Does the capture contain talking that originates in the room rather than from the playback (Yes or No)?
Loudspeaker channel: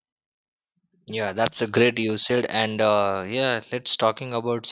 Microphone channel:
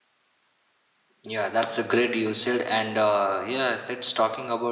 No